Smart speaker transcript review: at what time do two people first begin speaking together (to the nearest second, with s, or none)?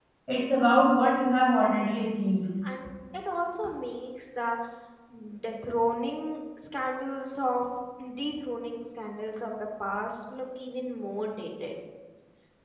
none